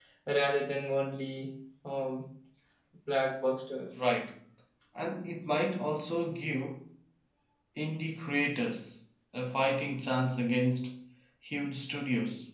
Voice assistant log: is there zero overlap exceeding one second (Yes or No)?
Yes